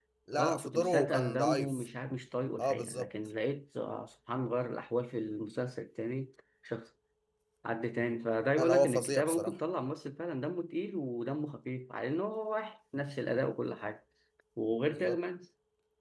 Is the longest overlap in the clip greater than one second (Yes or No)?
Yes